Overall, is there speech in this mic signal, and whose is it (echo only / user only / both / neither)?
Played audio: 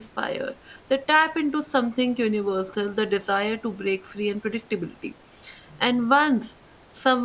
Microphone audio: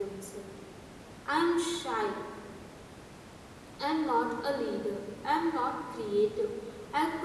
user only